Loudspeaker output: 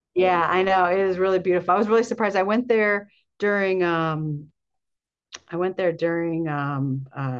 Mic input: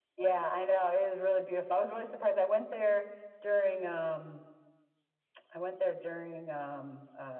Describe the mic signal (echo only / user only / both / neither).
echo only